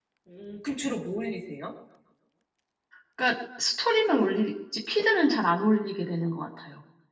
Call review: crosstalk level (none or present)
none